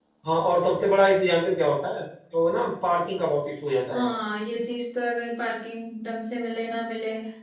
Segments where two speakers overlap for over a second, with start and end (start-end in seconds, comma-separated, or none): none